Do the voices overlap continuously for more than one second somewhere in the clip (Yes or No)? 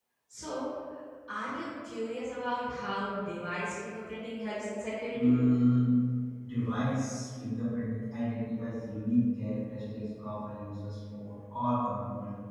No